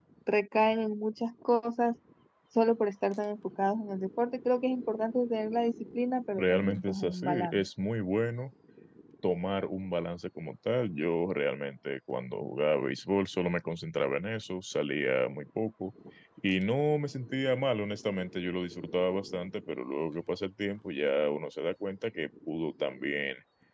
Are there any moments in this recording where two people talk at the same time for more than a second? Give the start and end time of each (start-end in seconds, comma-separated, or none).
6.3-7.6